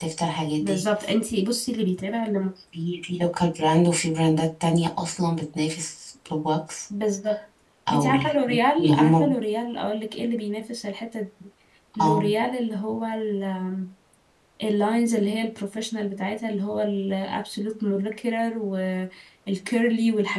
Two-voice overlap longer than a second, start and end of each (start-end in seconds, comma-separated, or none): 7.9-9.3